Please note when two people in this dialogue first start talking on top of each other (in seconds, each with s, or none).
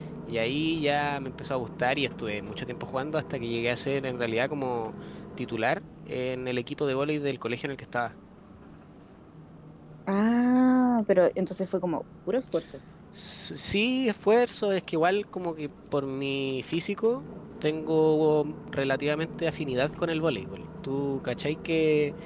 none